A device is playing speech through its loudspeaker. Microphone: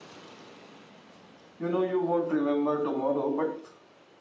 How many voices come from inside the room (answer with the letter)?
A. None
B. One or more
B